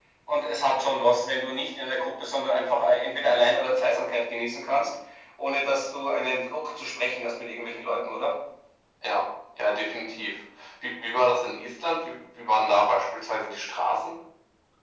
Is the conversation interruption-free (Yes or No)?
Yes